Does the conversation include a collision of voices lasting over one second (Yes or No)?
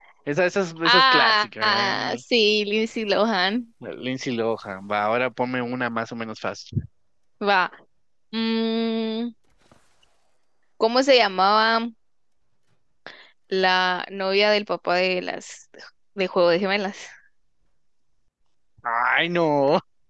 Yes